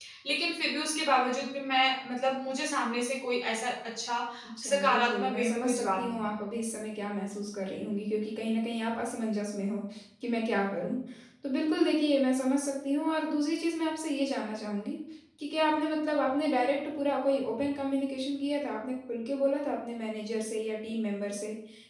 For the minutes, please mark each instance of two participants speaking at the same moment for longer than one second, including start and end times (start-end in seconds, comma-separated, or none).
4.7-6.3